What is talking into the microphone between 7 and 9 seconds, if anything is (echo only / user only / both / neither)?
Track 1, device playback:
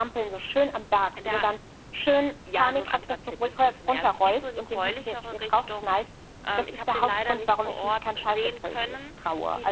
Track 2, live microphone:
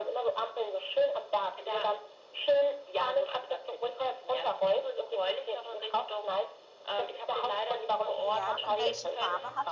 both